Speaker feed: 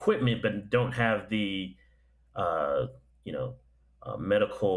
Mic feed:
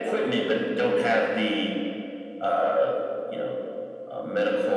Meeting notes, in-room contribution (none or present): none